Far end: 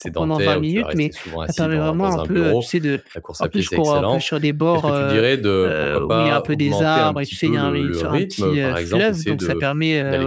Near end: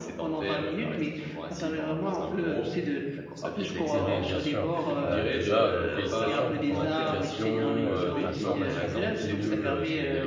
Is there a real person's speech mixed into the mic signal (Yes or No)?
Yes